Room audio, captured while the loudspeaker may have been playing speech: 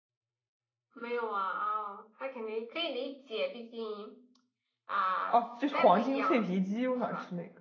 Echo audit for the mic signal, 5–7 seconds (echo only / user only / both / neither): both